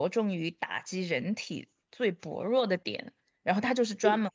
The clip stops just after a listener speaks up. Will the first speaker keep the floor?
Yes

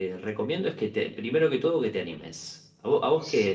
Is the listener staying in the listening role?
Yes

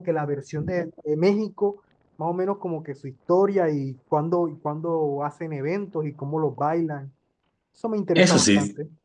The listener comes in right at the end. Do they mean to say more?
Yes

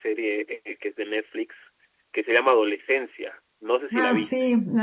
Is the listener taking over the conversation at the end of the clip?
Yes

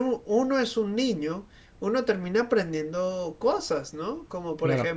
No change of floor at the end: Yes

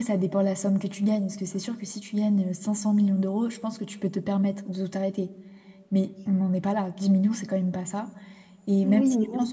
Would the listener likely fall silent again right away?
No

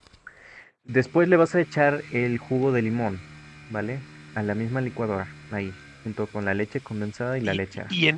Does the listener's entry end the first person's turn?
Yes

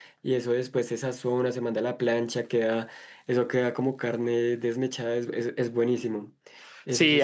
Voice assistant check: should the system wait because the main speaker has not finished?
No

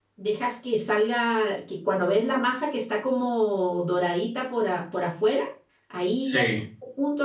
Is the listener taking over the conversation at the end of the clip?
No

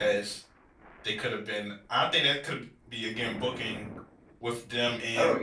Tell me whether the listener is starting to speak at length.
No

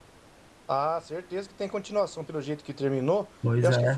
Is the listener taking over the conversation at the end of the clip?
No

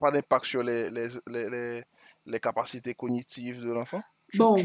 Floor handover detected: Yes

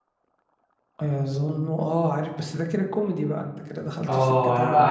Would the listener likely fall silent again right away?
No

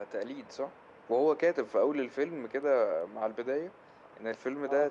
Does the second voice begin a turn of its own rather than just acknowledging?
No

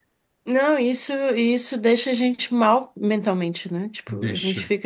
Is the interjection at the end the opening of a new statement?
No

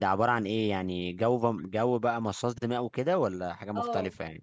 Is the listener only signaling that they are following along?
No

